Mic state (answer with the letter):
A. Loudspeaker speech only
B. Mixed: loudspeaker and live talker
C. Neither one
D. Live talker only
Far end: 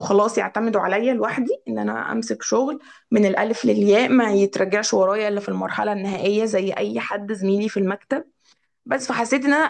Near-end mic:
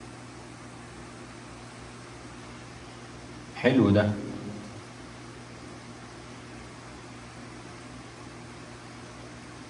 D